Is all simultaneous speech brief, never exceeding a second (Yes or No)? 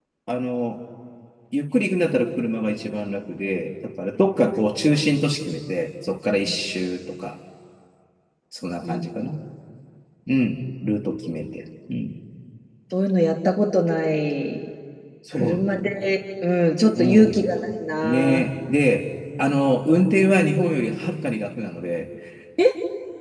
Yes